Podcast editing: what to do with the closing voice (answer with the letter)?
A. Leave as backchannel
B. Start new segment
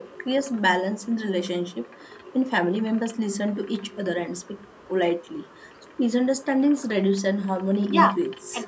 B